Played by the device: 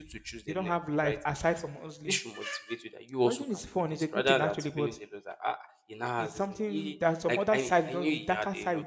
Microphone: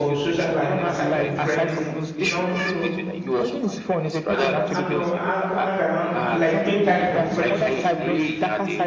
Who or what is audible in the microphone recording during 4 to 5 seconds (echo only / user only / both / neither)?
both